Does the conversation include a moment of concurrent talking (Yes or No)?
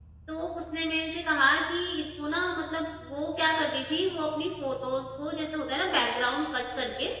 No